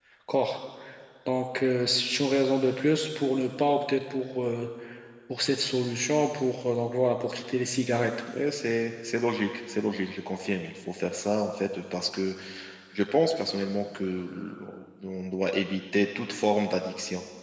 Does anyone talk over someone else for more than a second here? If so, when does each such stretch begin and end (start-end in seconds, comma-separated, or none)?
none